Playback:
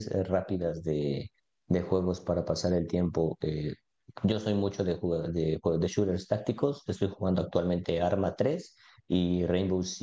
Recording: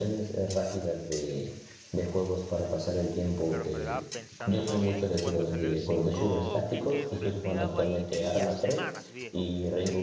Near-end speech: present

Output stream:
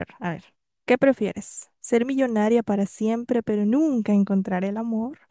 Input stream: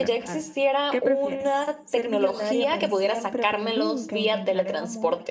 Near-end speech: present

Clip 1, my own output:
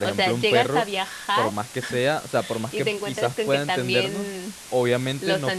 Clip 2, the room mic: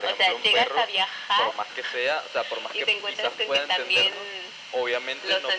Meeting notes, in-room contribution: none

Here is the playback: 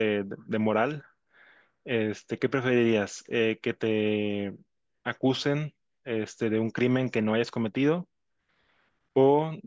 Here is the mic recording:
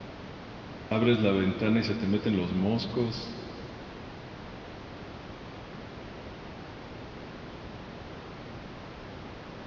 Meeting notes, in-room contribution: present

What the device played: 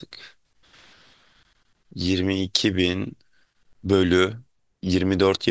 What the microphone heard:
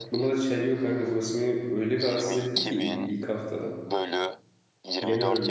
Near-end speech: present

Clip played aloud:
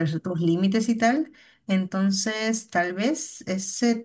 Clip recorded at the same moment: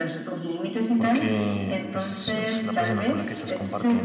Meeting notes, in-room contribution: present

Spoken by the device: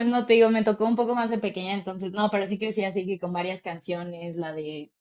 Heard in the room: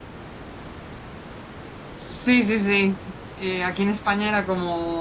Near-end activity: present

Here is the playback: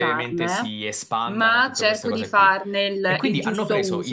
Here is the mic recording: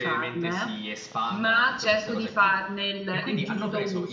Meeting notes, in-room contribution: none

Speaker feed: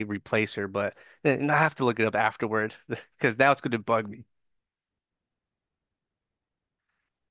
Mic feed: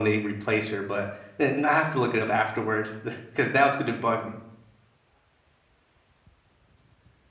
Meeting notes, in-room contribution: none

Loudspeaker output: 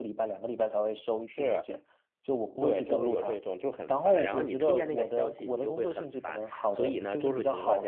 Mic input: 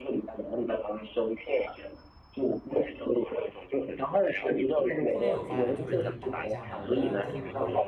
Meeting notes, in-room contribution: present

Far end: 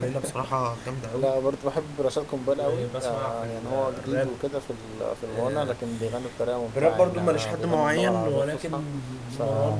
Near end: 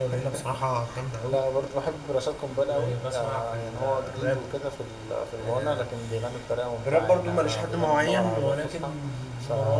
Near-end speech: none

